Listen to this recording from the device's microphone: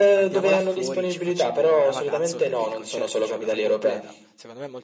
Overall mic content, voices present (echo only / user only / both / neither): both